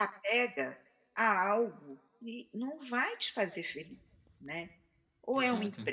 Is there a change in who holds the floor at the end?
No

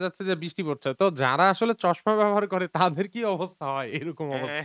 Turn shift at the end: Yes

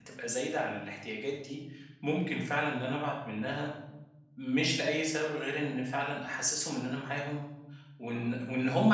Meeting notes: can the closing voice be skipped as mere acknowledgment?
Yes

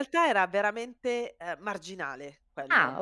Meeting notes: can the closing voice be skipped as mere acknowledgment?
Yes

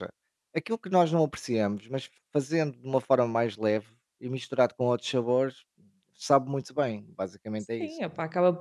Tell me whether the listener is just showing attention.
No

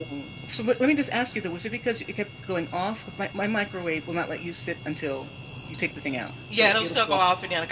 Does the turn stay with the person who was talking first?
No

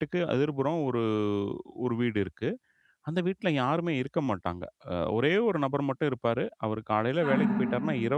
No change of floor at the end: Yes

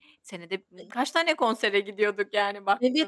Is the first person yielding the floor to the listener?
Yes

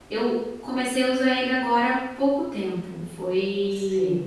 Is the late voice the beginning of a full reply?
No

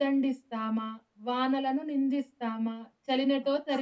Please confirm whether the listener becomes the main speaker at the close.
No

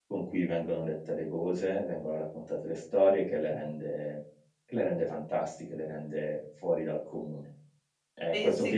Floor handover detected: No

